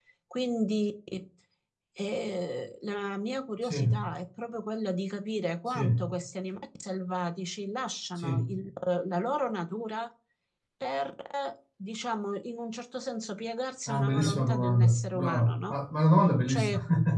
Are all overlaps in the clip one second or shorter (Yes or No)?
No